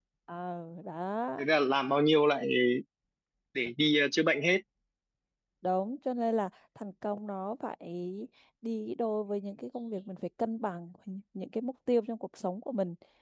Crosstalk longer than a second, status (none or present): none